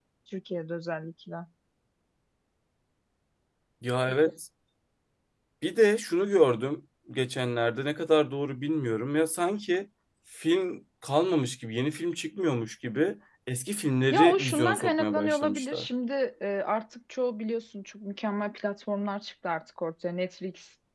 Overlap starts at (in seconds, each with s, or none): 14.1 s